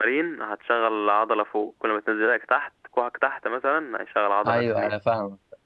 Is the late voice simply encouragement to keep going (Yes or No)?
No